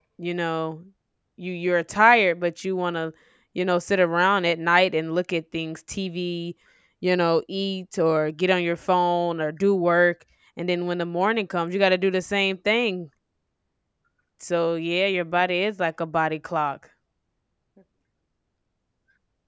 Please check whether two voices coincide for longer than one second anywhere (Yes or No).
No